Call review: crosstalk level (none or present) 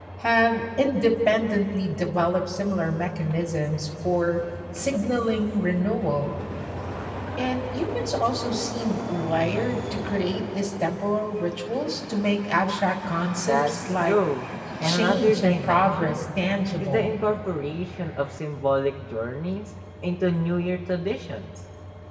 present